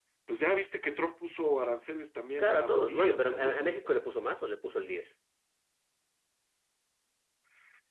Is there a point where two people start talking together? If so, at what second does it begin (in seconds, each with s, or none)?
2.4 s